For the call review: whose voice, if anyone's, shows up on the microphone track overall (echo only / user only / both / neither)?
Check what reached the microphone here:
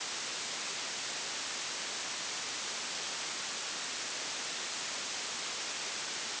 neither